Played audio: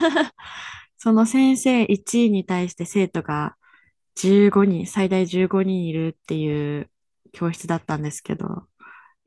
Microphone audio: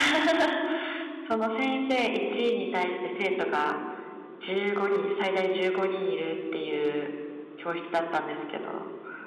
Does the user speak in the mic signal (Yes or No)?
No